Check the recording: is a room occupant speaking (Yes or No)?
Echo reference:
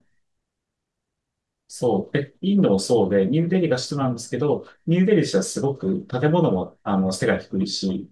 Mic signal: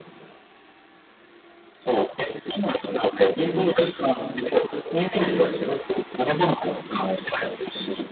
No